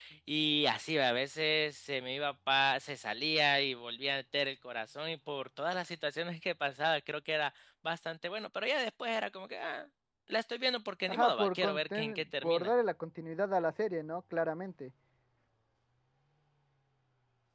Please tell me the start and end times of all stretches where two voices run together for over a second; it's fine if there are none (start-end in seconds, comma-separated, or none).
11.1-12.7